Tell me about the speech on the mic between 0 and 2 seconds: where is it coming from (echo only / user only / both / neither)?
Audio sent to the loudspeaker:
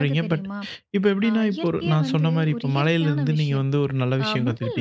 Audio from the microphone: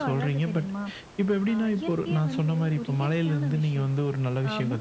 echo only